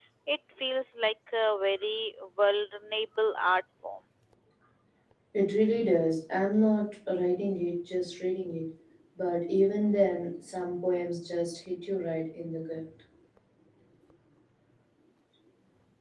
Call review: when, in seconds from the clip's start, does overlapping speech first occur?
none

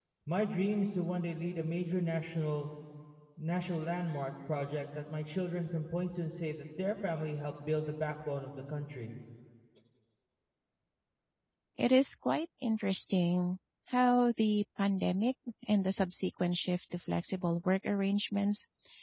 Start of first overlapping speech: none

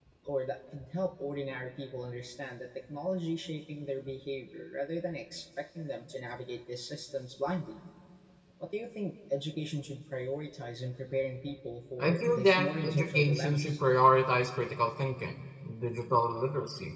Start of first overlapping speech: 12.0 s

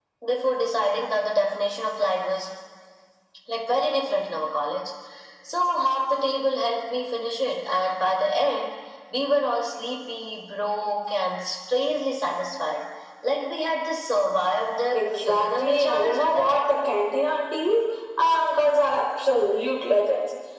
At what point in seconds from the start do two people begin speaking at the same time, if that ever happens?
14.9 s

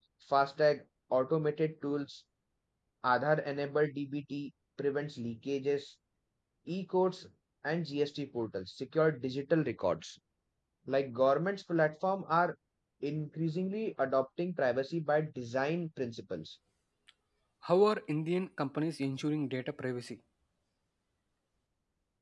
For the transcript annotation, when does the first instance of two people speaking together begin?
none

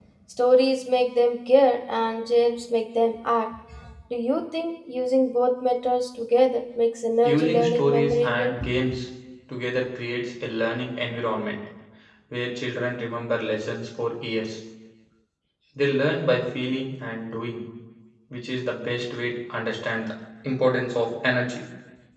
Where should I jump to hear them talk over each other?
7.2 s

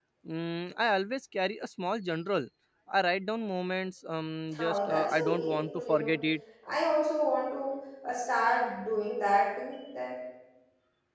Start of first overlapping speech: 4.5 s

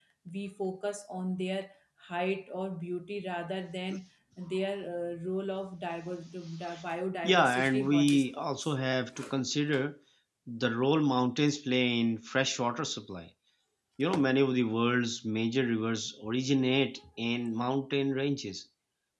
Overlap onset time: 7.2 s

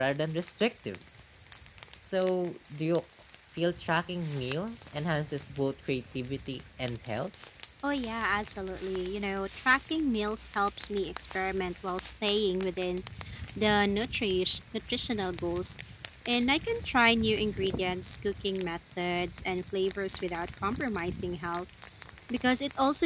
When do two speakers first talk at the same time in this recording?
none

